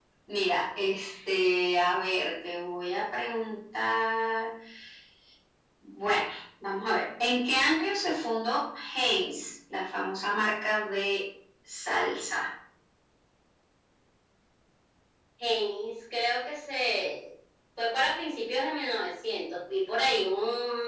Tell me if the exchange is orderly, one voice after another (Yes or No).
Yes